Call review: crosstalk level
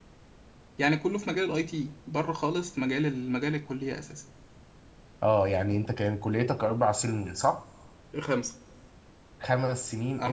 none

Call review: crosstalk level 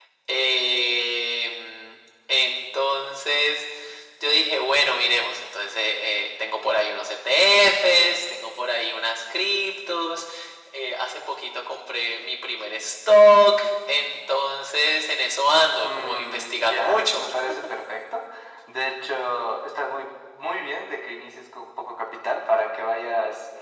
present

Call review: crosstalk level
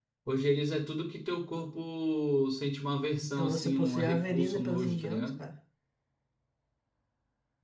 present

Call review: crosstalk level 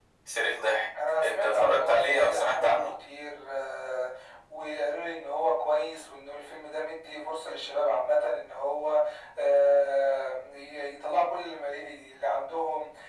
present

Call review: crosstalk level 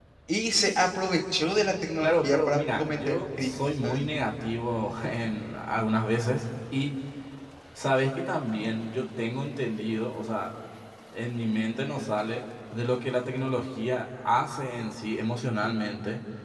present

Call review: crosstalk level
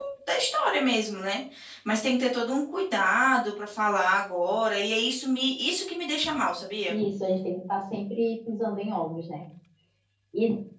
none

